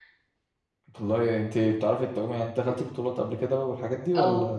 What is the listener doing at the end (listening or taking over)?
taking over